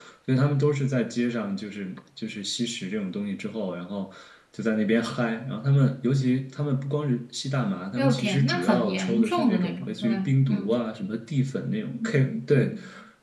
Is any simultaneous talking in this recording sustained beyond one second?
Yes, from 8.0 s

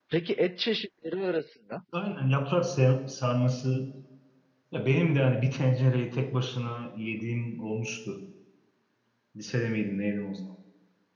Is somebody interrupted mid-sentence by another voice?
No

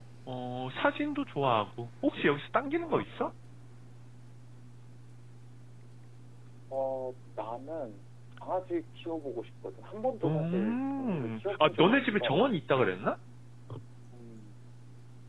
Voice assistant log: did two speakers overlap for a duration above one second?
Yes, from 10.2 s

